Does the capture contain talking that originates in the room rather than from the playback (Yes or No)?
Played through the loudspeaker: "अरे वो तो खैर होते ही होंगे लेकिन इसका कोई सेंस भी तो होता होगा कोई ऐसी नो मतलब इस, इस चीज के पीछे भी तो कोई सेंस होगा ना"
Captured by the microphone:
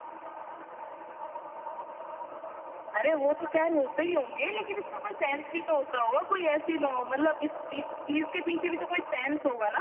No